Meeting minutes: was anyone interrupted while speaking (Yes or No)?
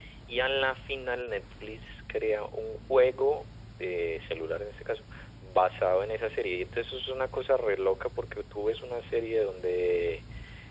No